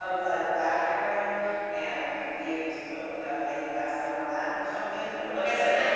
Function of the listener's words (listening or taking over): taking over